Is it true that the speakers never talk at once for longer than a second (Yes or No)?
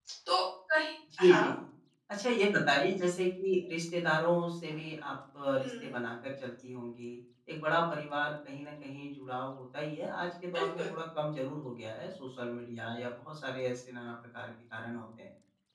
Yes